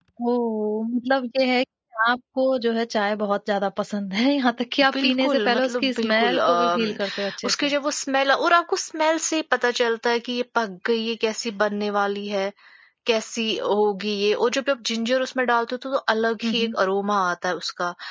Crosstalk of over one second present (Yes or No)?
Yes